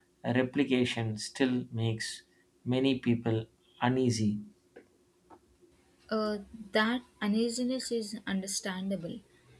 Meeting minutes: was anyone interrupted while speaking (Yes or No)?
No